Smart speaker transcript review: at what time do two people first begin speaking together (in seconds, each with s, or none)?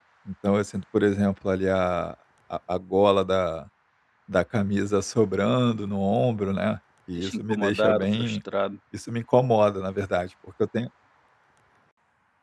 7.2 s